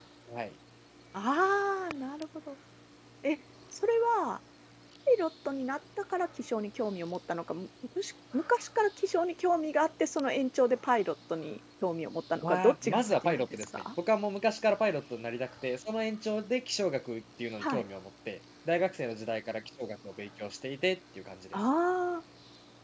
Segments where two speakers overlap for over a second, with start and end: 12.4-13.7

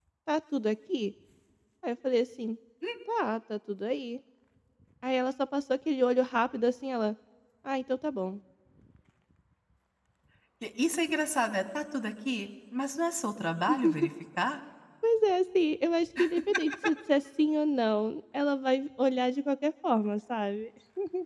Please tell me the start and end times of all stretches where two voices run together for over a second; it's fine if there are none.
none

